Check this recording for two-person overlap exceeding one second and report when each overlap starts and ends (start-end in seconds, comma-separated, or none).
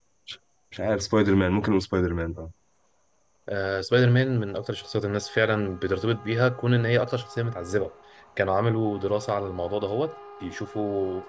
none